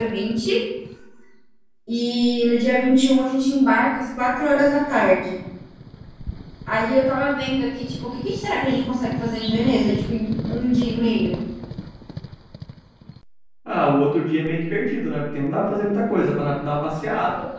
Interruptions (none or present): none